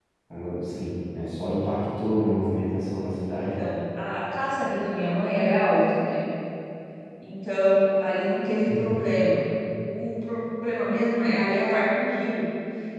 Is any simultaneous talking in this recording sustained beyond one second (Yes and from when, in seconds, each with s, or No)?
No